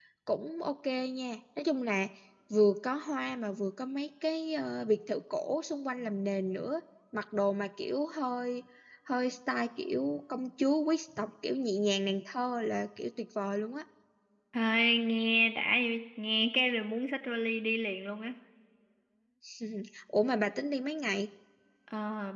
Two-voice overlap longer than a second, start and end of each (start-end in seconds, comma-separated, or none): none